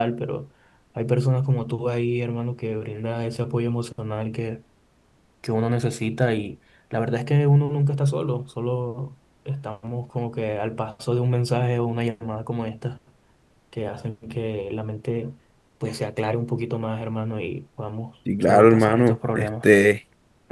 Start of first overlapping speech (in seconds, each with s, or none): 18.3 s